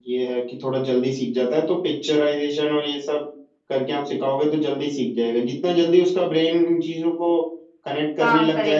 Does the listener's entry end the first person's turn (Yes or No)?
No